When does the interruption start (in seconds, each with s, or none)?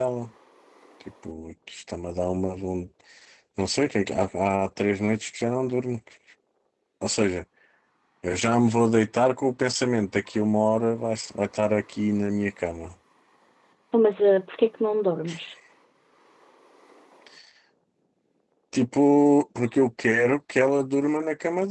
none